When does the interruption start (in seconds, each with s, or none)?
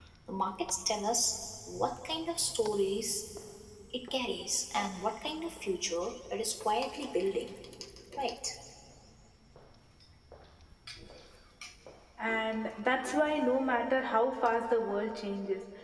none